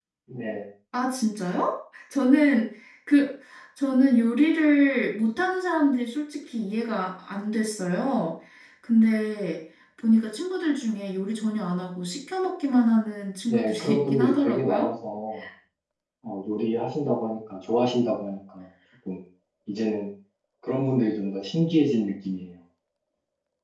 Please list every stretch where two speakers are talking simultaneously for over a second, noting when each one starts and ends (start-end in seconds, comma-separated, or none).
13.5-14.9